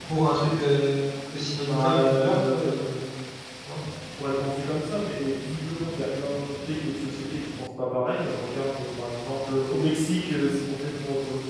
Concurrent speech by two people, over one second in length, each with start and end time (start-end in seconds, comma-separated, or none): 1.6-2.9